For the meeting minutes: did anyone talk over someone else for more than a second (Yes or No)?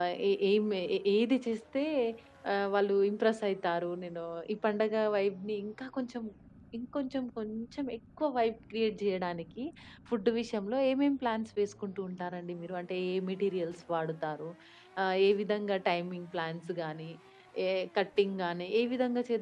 No